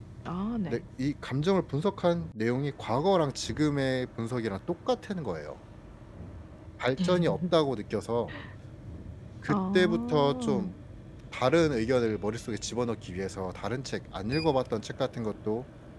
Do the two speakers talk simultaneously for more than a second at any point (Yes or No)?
Yes